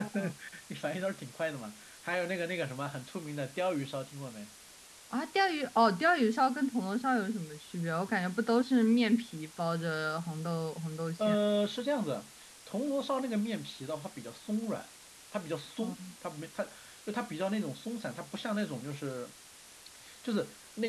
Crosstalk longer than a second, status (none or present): none